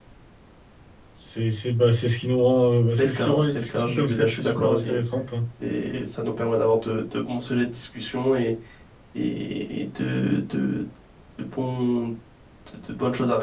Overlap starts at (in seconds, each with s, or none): 3.0 s